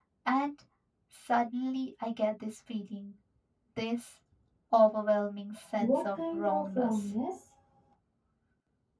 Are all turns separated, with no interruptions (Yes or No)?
No